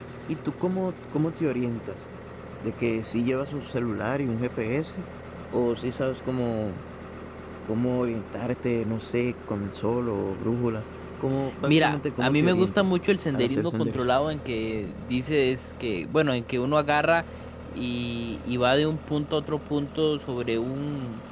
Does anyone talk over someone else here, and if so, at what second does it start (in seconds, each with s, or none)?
11.7 s